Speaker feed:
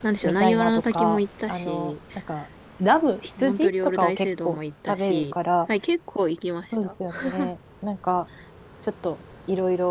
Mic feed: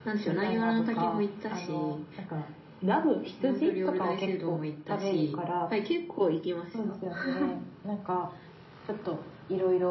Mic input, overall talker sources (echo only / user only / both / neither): echo only